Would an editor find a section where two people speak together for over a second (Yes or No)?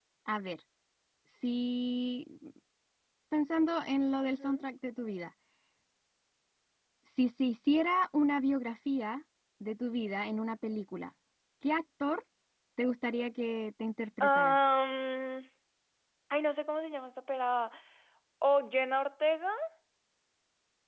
No